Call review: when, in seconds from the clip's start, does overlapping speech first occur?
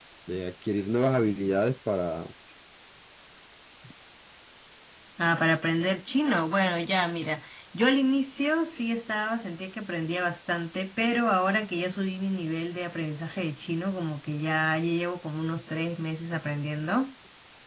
none

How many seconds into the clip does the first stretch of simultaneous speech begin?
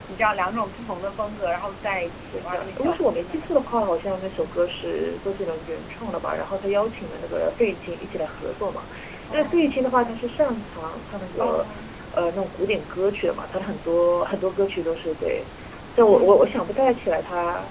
2.3 s

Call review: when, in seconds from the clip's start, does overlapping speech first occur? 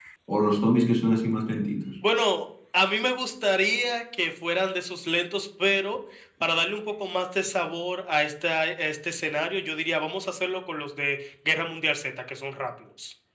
none

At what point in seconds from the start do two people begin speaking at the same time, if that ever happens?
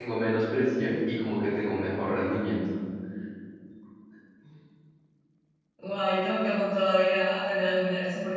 none

